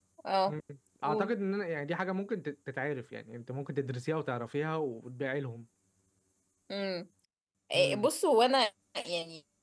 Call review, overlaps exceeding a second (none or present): none